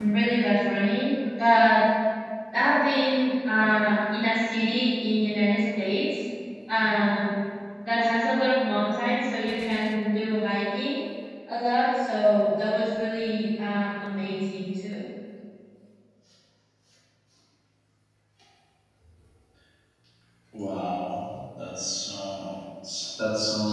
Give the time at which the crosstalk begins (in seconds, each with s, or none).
none